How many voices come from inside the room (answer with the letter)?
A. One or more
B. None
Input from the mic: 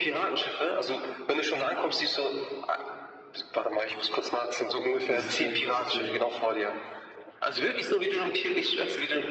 A